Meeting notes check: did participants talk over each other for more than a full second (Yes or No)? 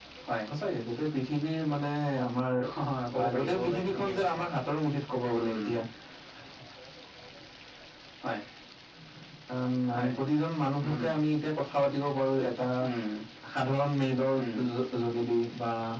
Yes